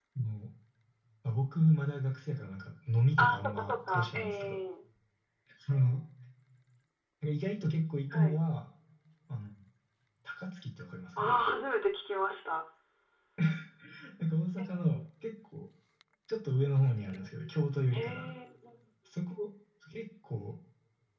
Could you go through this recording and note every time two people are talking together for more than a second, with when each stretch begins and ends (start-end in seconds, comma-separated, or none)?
3.2-4.6